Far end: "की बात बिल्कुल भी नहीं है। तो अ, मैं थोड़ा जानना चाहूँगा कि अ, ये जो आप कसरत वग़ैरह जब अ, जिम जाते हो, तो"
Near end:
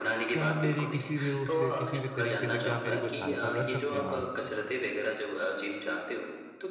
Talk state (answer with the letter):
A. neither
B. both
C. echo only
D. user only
B